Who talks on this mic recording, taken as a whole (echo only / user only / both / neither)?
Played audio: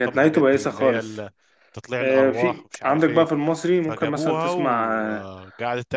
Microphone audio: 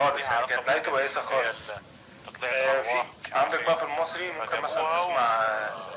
echo only